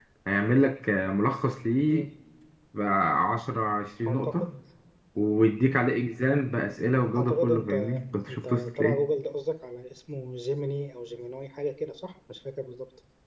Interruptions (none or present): present